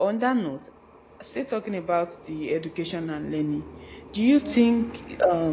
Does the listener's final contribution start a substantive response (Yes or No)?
No